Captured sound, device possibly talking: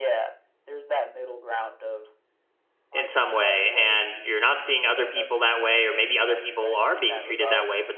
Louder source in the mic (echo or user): user